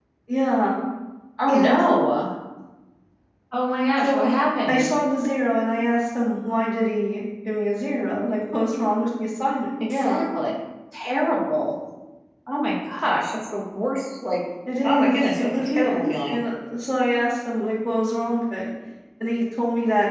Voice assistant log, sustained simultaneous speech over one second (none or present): present